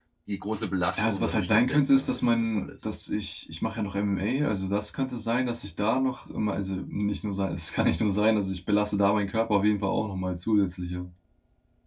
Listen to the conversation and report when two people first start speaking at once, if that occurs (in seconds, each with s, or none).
1.0 s